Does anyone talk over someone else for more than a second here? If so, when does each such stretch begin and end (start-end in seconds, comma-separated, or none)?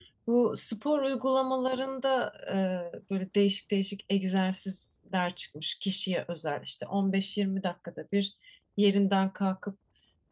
none